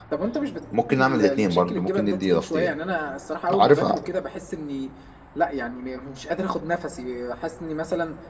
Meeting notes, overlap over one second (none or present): present